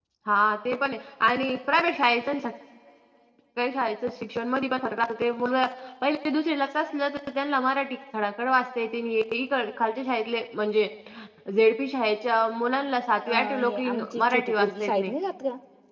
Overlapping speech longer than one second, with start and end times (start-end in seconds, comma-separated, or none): 13.3-15.1